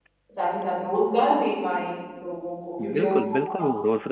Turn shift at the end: Yes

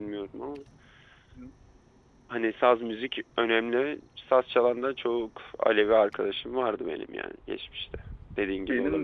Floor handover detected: Yes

